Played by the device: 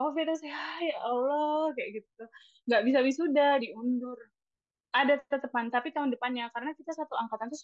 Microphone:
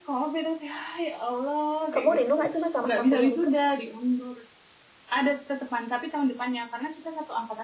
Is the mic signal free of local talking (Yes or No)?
No